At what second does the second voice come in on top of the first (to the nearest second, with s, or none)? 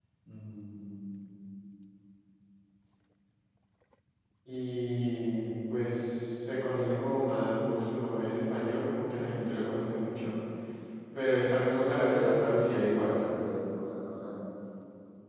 12 s